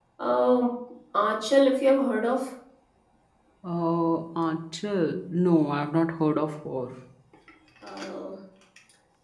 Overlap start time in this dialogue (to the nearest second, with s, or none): none